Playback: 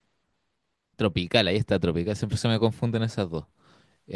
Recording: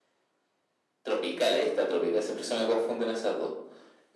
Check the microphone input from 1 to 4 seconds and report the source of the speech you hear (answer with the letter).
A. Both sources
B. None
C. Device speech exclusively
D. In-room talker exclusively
C